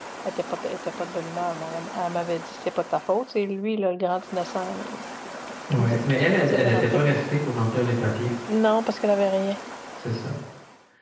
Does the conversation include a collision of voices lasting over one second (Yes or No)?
Yes